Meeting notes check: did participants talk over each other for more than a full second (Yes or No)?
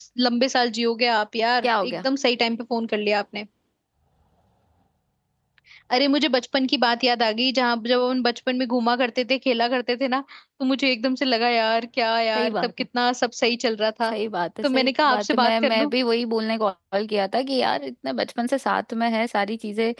Yes